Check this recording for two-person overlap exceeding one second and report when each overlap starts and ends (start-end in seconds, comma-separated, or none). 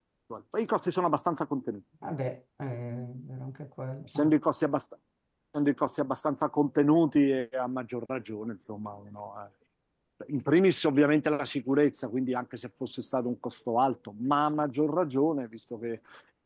none